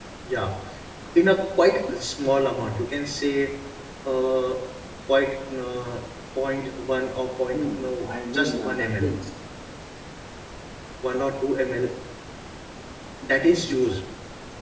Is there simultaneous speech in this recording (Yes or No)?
Yes